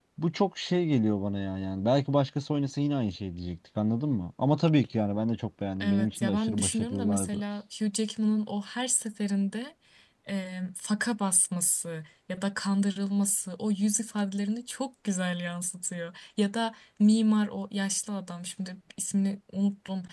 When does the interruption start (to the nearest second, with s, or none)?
6 s